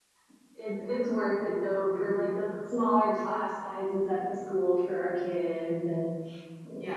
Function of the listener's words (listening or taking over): taking over